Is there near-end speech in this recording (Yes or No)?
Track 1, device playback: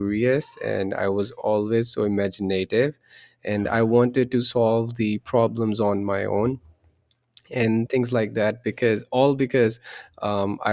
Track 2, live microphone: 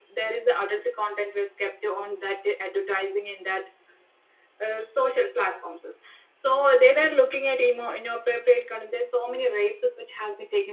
Yes